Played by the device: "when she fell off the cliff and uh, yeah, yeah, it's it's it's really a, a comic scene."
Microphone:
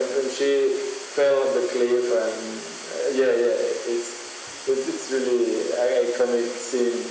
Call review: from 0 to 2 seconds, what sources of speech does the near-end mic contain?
echo only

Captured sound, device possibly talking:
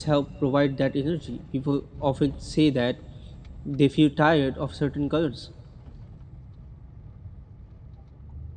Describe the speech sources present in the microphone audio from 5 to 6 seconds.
user only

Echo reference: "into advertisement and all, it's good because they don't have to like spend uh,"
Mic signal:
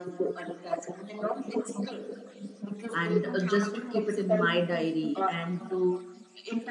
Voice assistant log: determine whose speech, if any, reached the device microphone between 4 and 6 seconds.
both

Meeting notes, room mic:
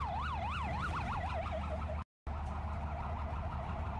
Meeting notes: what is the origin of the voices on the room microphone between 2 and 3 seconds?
neither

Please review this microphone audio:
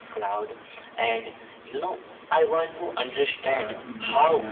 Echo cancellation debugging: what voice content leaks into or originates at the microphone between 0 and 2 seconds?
echo only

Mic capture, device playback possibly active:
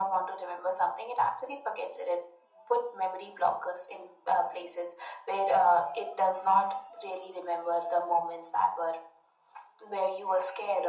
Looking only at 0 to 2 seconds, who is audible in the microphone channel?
echo only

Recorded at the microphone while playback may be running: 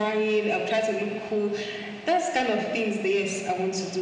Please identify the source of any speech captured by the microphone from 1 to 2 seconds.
echo only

